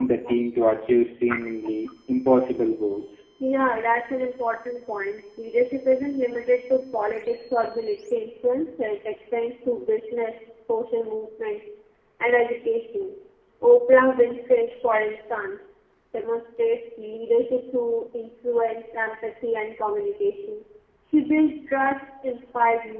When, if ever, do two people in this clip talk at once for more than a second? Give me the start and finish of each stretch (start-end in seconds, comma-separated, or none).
none